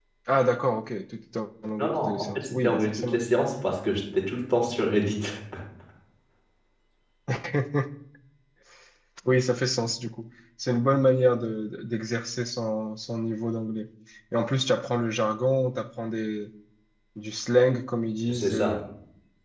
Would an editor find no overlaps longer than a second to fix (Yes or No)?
No